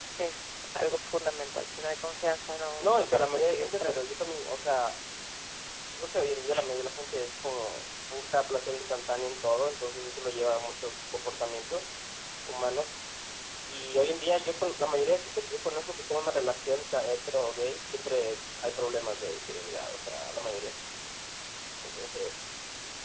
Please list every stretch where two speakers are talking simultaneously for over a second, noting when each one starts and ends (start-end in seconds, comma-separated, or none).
2.8-4.0